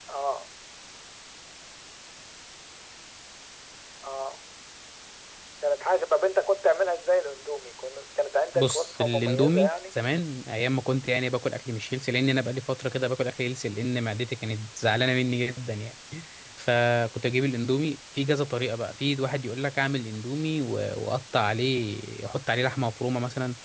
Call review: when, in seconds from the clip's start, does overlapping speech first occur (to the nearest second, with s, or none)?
9 s